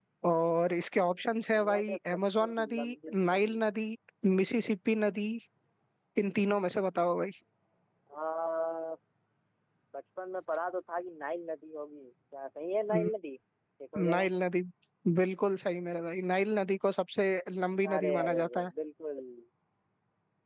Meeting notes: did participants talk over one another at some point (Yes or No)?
Yes